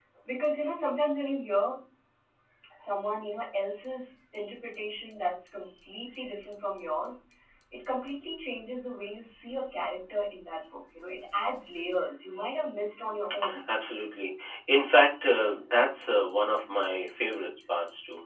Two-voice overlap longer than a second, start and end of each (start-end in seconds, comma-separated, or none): none